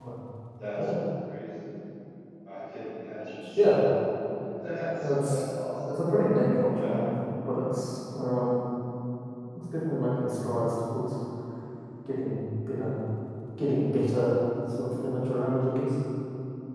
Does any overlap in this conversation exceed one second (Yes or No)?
No